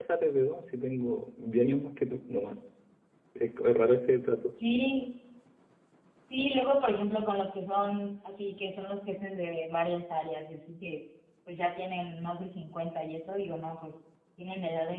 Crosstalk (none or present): none